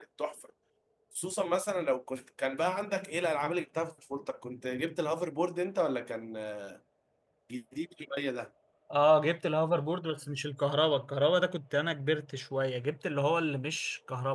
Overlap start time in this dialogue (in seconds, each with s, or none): none